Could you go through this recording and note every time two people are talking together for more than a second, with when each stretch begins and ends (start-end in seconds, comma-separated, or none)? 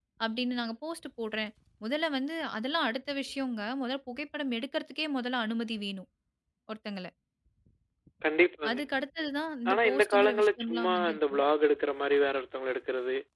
9.7-11.4